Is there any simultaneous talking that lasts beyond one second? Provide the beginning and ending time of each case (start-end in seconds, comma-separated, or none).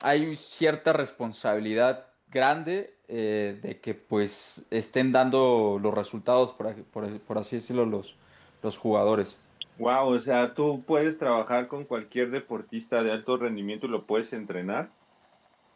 none